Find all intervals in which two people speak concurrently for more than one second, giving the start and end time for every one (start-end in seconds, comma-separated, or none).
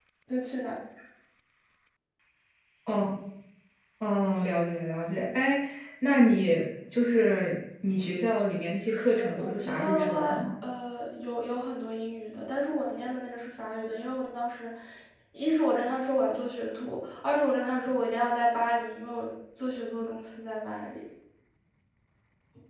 8.8-10.4